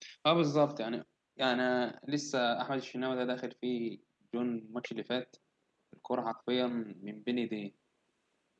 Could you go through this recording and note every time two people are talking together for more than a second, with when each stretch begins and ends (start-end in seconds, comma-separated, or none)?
none